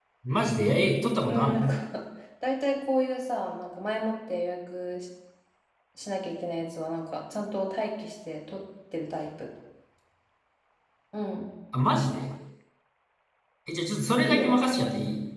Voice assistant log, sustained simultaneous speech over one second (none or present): none